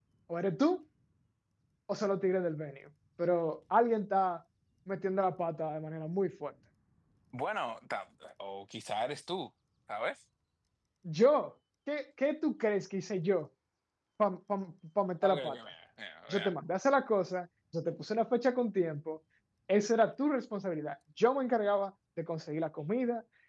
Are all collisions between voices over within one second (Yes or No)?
Yes